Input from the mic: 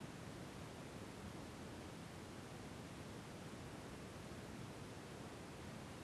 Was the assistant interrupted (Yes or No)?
No